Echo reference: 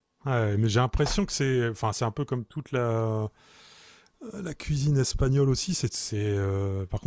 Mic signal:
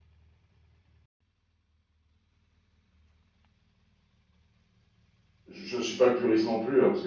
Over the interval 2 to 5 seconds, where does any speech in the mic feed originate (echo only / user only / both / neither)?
neither